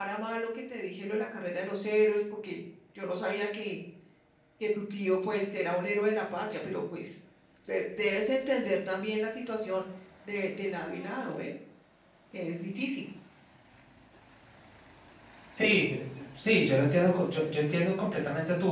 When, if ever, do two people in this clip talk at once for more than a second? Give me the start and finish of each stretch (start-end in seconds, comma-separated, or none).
none